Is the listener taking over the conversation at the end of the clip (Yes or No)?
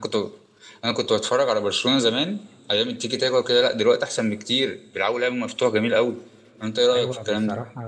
Yes